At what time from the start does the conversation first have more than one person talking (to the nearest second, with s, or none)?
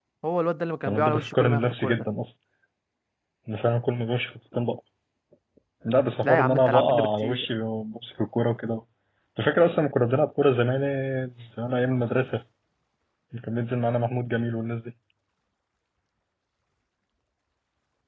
1 s